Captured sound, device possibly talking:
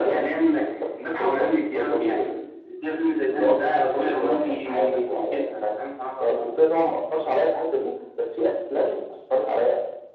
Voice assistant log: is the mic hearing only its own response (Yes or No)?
Yes